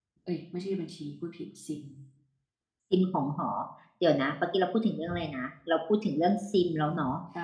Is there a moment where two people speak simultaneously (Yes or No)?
No